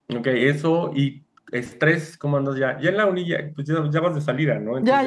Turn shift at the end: Yes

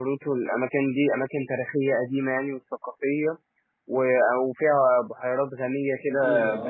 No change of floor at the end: No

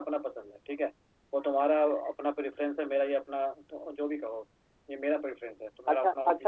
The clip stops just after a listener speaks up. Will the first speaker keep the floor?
No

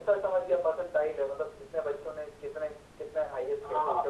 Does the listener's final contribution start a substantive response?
Yes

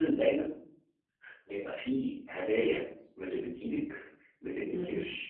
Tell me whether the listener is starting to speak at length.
No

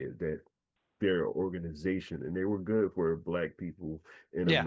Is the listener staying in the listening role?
Yes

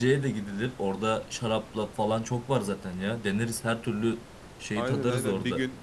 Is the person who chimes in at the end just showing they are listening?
No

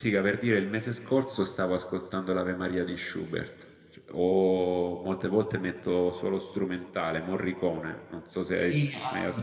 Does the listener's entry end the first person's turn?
Yes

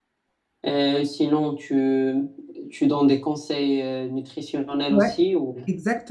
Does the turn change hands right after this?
Yes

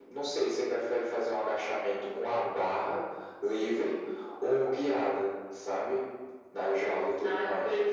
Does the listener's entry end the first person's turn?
Yes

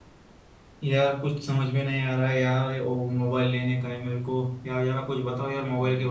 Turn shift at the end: No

